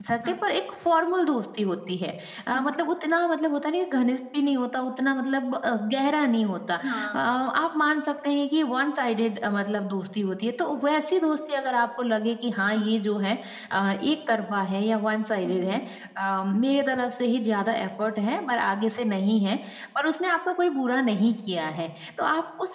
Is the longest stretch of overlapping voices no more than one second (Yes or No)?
Yes